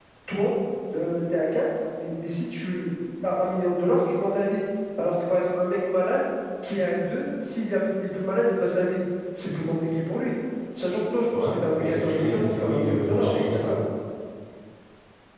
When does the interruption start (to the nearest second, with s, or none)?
11 s